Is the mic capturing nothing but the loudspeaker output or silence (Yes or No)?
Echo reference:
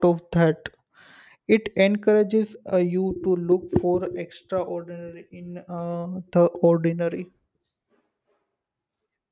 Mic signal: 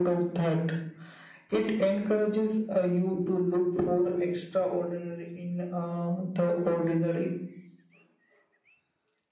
Yes